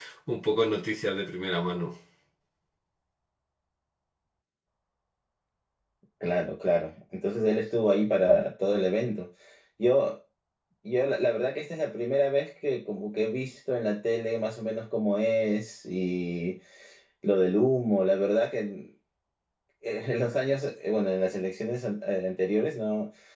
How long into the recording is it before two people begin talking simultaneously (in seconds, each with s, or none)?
none